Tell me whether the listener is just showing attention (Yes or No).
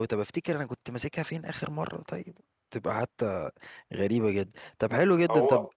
Yes